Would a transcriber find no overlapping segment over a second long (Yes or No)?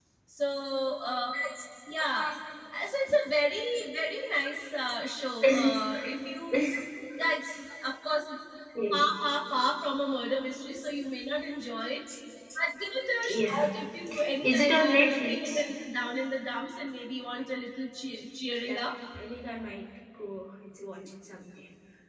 No